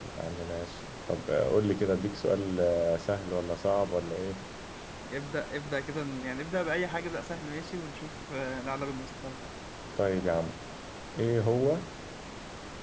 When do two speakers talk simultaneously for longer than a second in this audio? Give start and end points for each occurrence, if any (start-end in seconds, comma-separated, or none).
none